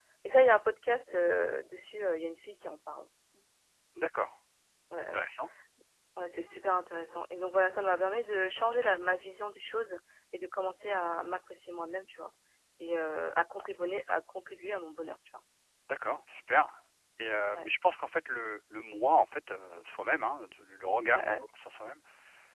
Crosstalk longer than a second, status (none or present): none